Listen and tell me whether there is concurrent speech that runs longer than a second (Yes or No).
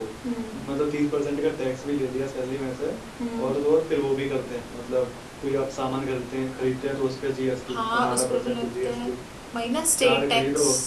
Yes